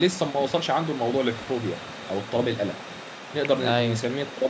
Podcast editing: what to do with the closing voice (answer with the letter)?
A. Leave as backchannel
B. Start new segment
A